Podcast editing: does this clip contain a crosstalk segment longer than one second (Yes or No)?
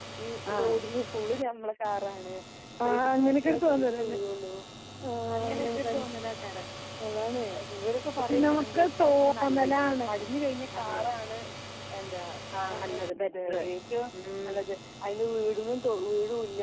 Yes